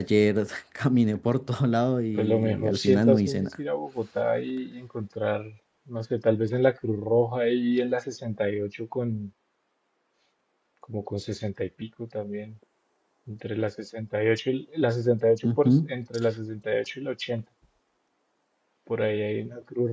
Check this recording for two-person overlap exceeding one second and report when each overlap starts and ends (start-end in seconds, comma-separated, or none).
2.2-3.5